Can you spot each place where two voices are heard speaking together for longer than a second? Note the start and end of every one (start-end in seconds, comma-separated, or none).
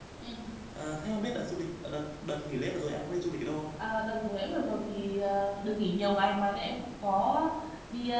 none